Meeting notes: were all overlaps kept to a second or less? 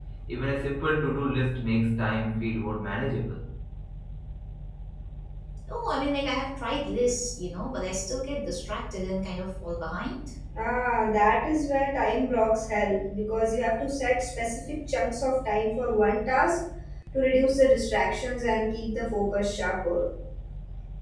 Yes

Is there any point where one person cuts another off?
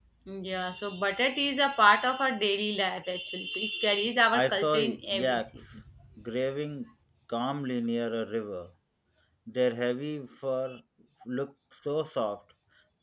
Yes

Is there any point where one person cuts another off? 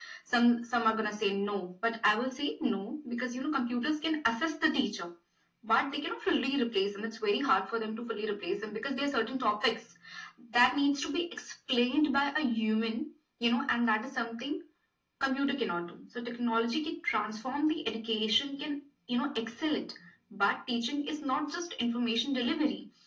No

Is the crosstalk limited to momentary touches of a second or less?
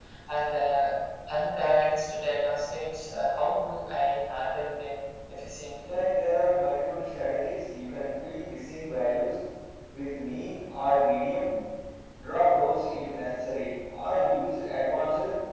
Yes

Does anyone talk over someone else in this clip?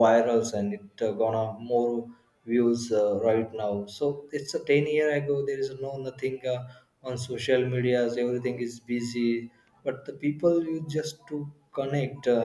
No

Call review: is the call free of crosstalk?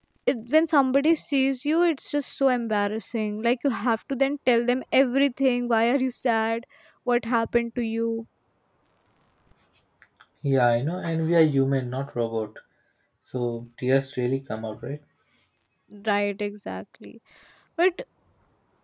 Yes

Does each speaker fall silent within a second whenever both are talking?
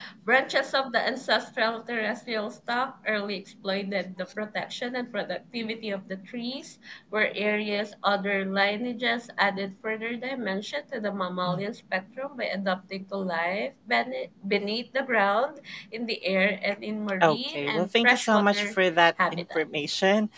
No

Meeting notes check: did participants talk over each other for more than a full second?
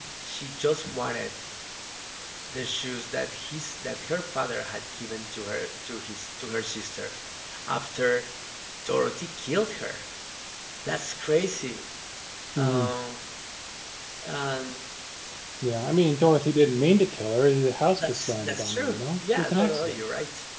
Yes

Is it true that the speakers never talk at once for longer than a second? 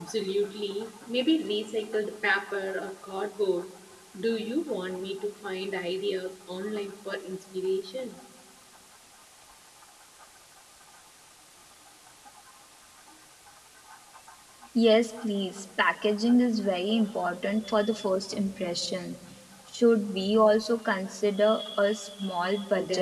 Yes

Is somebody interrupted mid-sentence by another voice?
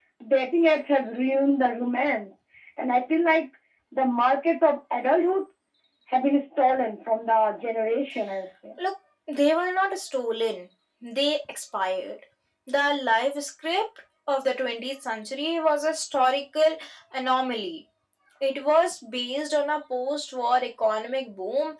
No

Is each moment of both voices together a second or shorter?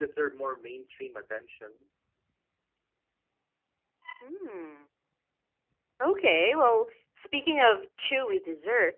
Yes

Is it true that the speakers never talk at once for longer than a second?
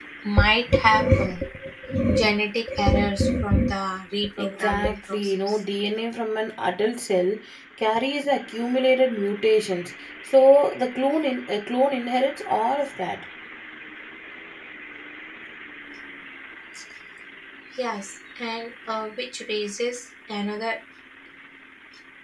No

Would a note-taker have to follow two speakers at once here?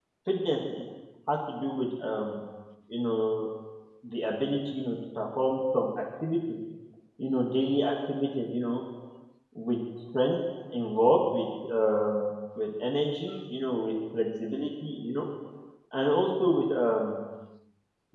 No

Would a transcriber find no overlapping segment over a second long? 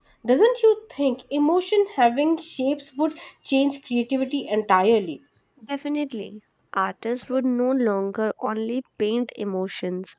Yes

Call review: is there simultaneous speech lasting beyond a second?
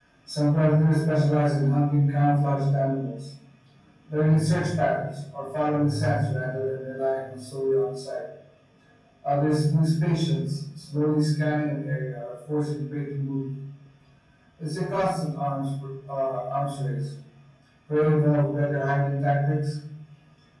No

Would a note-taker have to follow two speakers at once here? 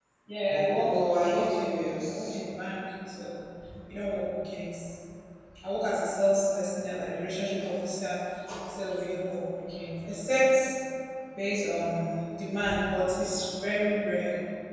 Yes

